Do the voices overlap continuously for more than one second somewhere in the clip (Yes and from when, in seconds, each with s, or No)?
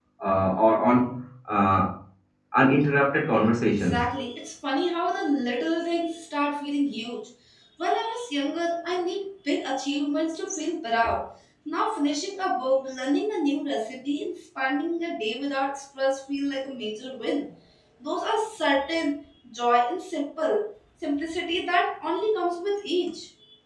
No